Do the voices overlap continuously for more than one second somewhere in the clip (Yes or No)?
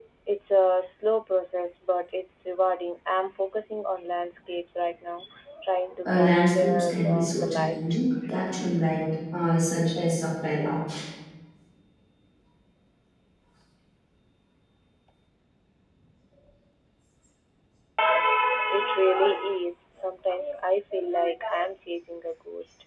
Yes